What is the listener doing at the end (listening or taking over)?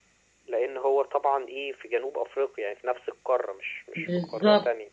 taking over